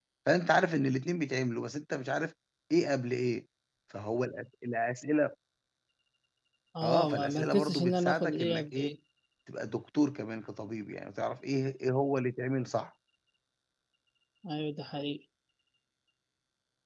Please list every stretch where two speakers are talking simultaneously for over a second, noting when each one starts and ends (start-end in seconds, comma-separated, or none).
6.8-8.9